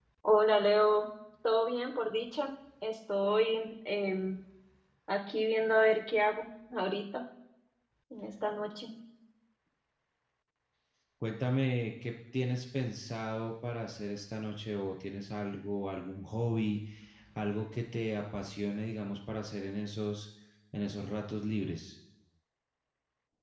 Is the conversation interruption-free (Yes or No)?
Yes